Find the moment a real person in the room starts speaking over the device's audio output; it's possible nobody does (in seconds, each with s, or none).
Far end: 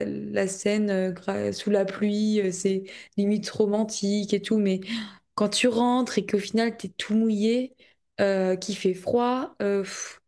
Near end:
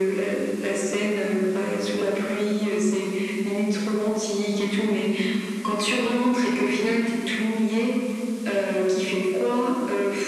none